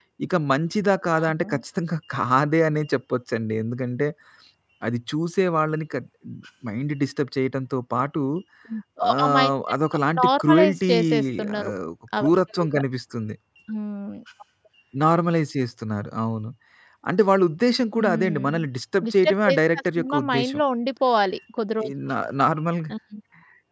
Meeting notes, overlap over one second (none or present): present